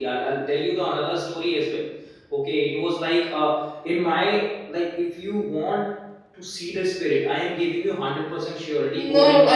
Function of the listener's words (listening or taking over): taking over